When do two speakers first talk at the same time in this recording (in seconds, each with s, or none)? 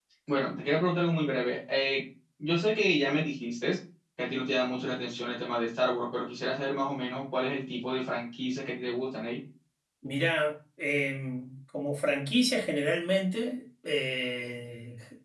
none